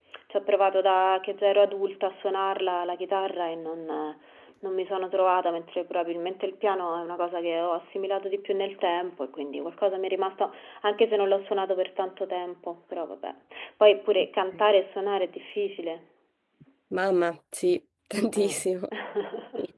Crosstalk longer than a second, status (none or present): none